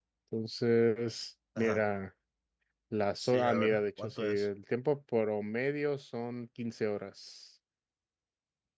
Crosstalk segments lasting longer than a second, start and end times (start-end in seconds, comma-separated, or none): 3.2-4.5